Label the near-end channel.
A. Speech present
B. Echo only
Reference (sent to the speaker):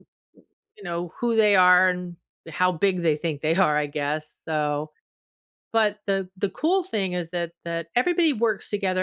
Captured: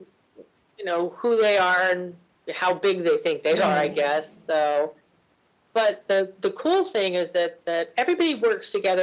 A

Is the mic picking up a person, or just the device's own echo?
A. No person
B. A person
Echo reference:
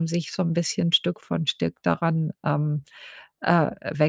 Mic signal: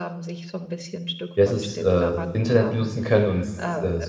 B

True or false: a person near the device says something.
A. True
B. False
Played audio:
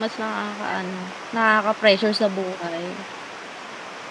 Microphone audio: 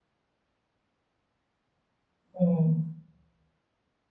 A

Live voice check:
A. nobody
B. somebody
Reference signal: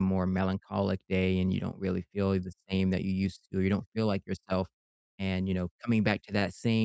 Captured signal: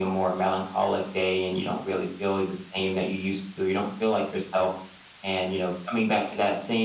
A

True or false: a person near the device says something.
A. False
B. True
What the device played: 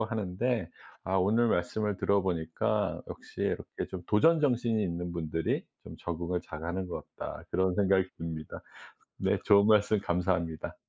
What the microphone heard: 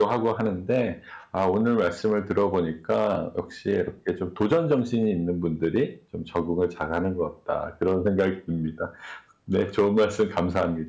A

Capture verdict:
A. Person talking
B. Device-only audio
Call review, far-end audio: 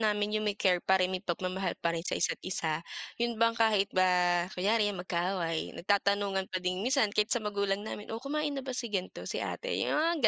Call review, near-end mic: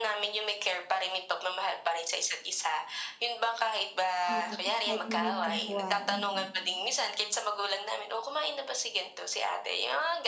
A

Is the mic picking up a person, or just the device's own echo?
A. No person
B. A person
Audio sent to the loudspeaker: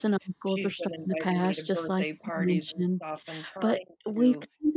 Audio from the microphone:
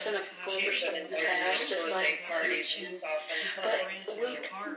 B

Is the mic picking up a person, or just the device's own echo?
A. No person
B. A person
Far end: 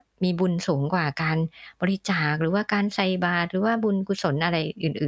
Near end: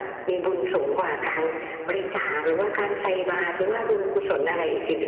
A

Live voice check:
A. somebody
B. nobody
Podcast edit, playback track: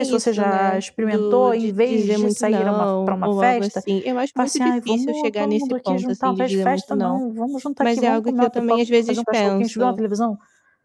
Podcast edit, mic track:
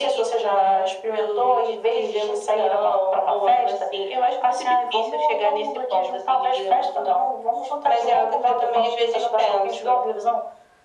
B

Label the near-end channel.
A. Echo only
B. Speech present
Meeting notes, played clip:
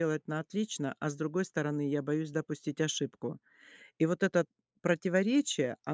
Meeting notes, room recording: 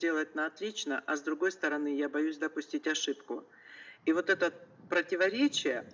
A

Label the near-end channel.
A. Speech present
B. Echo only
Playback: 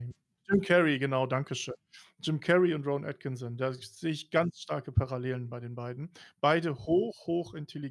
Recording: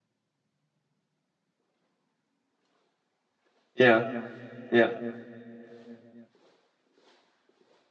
A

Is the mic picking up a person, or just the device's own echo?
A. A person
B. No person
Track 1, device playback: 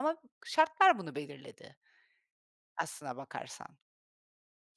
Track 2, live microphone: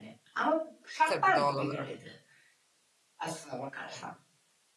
A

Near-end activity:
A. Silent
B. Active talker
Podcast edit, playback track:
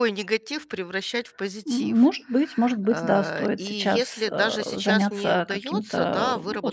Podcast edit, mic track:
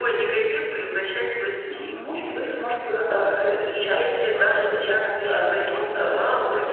A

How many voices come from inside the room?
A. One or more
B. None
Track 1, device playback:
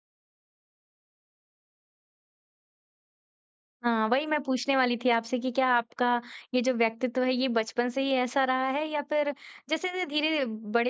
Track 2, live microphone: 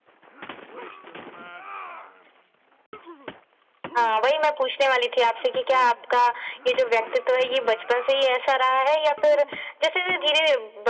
B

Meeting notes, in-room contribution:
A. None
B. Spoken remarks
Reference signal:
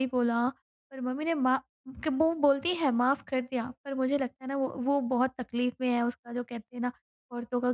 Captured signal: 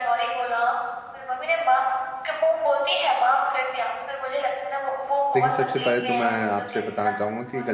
B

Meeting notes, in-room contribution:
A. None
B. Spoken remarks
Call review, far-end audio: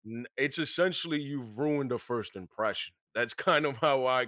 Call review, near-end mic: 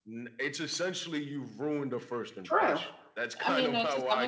B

